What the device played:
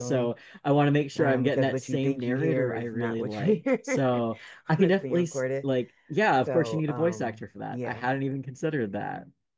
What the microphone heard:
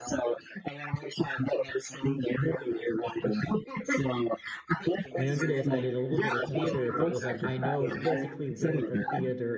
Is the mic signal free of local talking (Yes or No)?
No